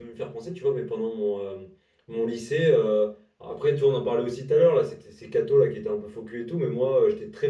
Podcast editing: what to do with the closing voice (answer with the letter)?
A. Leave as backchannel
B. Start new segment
A